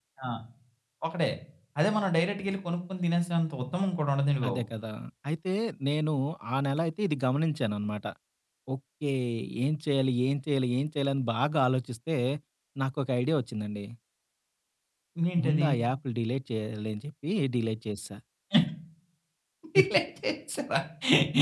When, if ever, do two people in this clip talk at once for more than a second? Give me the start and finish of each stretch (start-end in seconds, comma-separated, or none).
none